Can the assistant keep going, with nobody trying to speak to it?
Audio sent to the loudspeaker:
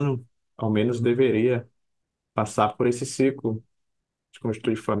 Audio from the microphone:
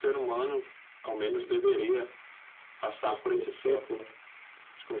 No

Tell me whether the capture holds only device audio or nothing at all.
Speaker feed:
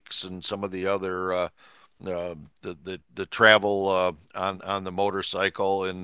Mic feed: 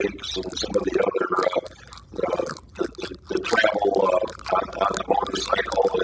Yes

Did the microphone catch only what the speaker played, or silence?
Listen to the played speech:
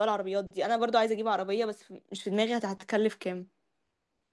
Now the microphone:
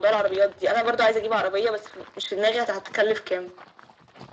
Yes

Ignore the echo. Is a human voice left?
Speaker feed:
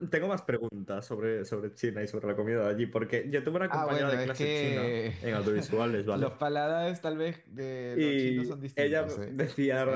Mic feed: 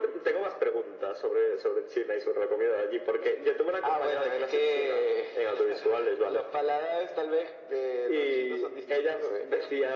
No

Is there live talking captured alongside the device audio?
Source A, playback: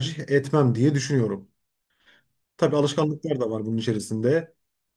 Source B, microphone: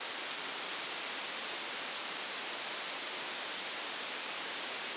No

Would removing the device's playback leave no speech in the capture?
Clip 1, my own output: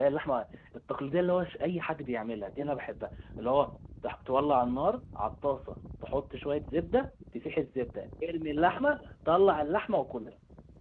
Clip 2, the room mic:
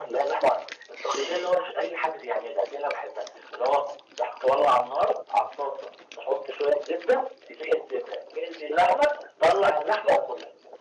Yes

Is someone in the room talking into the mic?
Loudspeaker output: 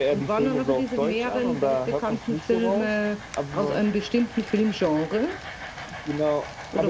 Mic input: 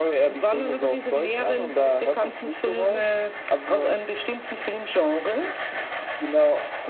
No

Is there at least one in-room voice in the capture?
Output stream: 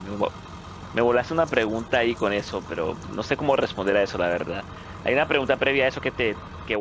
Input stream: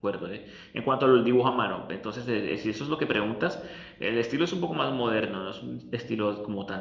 Yes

